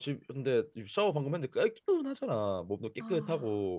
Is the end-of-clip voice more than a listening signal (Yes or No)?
No